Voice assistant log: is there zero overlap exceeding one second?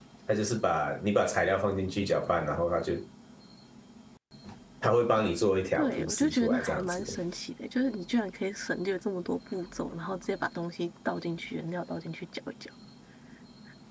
No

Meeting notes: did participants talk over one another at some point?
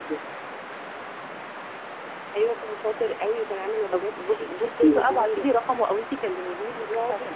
Yes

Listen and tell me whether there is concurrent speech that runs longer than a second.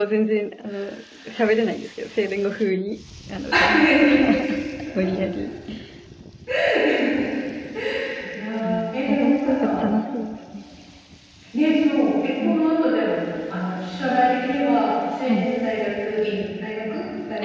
Yes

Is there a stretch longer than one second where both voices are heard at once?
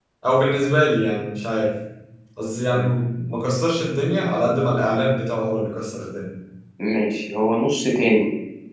No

